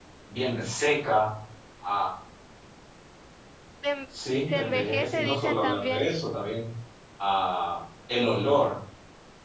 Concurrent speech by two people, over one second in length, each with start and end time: 4.5-6.1

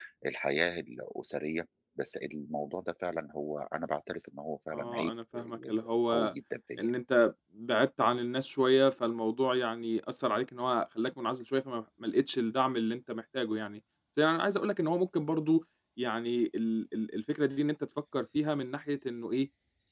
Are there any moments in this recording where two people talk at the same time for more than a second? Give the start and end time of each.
4.7-6.3

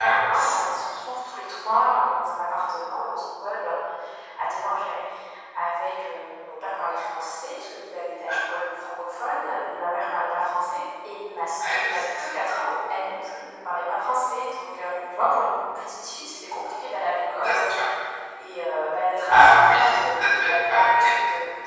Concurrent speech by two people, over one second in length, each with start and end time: 19.3-21.1

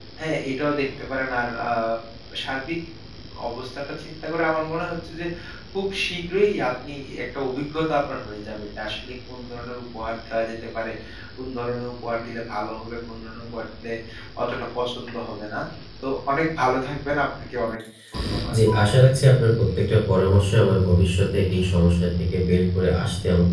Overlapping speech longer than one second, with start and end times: none

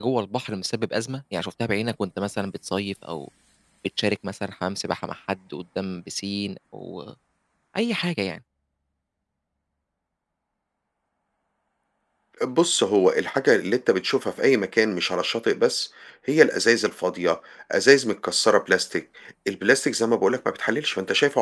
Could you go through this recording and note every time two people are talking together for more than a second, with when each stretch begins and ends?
none

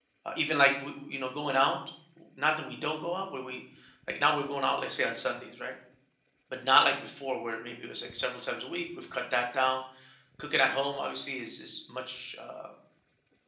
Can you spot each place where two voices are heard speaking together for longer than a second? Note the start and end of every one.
none

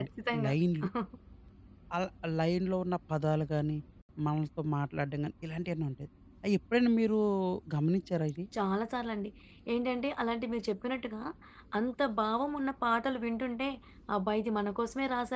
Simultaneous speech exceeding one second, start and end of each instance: none

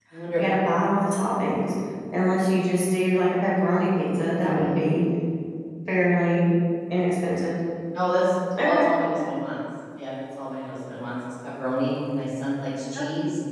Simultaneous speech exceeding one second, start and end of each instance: none

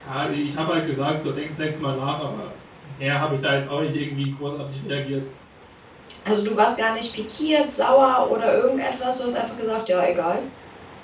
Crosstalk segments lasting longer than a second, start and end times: none

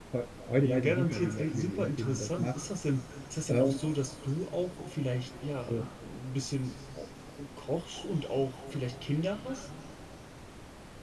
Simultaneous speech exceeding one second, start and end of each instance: 0.6-2.6

